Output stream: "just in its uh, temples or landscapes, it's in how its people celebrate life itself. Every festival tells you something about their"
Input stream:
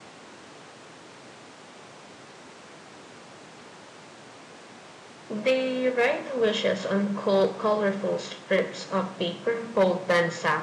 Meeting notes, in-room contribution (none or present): present